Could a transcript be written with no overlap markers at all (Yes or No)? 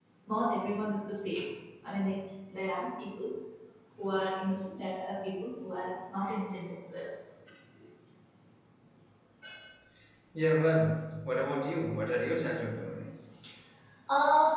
Yes